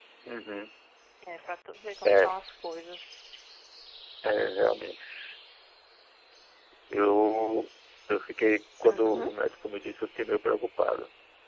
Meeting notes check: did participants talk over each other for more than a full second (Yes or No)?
No